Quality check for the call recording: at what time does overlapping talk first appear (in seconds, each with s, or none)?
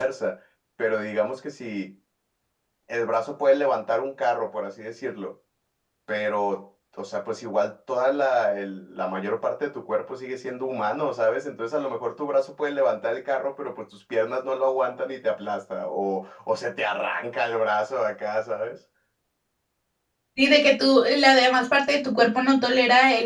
none